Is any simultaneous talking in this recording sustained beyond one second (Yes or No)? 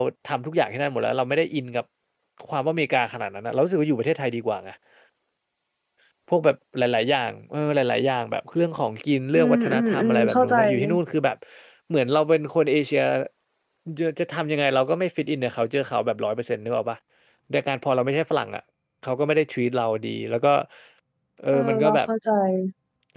Yes